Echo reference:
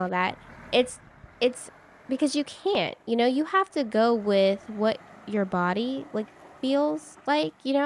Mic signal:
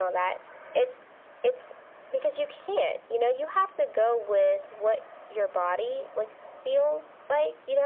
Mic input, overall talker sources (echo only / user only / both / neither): echo only